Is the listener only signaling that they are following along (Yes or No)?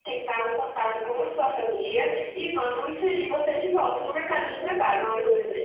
No